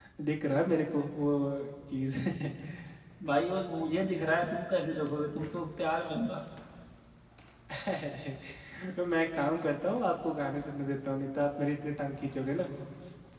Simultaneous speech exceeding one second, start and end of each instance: none

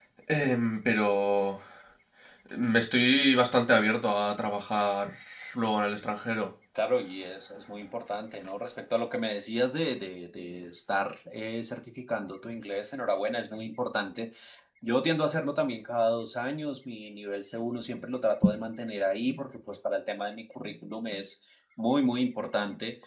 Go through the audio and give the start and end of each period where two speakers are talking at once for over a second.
none

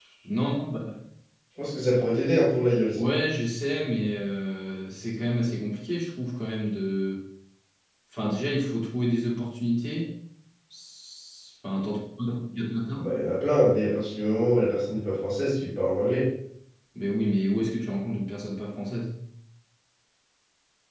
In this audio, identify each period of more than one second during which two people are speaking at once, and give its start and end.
none

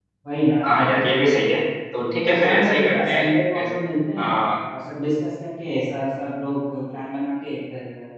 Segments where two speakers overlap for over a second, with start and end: 1.9-3.7

